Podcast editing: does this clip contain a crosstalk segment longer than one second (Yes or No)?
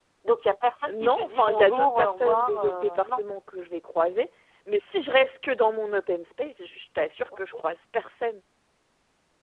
Yes